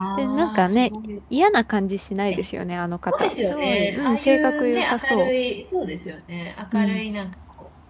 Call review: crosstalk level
present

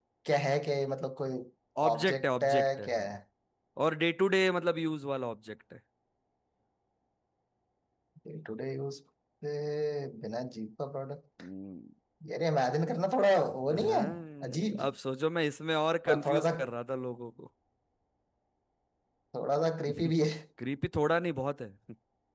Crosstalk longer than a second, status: present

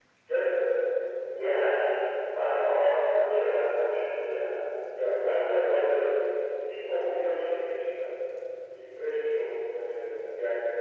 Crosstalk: none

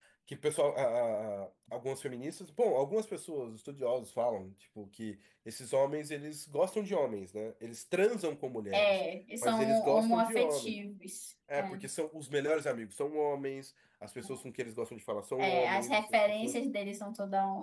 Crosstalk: present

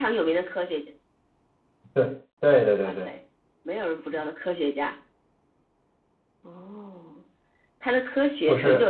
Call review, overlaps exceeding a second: none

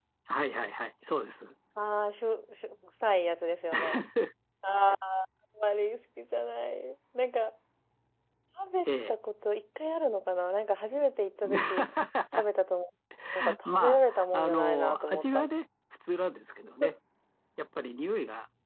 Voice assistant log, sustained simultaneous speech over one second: present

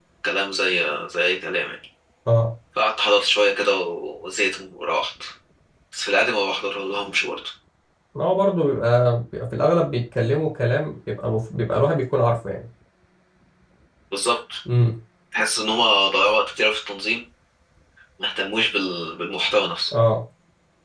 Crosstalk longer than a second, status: none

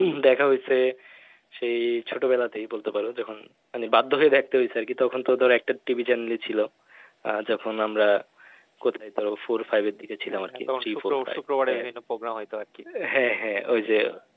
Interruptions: present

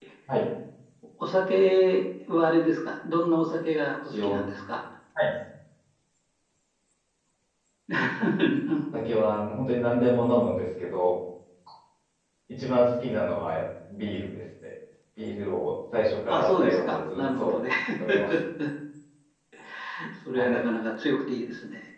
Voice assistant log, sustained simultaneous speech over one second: present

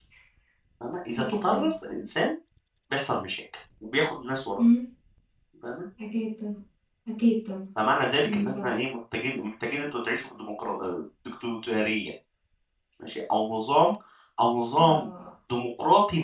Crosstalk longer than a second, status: none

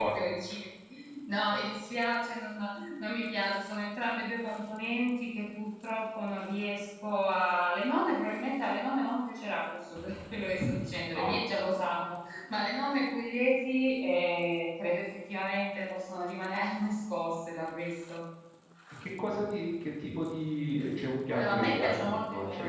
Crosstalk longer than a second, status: present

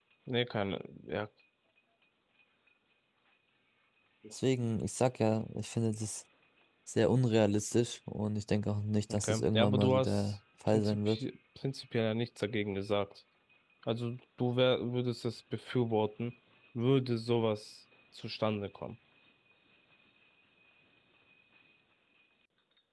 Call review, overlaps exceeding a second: present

